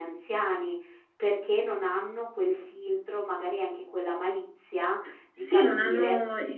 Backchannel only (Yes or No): No